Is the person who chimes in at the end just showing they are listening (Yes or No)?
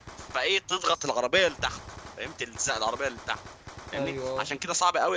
Yes